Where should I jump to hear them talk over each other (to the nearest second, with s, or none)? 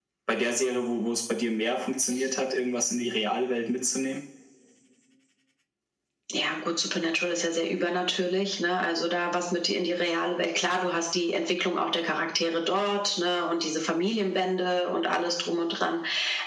none